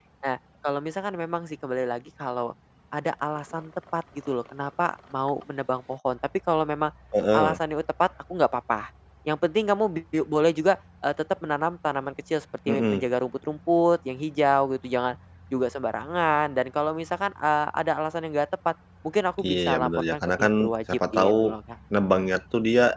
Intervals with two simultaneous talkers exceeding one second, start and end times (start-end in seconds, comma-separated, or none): 19.4-21.6